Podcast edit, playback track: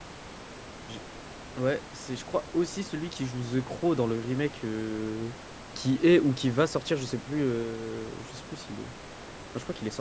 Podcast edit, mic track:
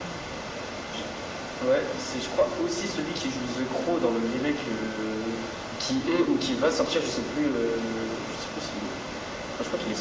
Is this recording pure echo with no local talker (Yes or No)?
Yes